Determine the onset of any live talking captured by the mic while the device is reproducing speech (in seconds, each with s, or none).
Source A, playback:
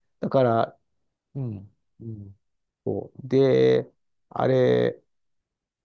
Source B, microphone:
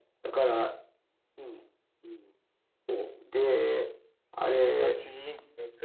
4.8 s